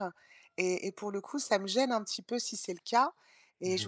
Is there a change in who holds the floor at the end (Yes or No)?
No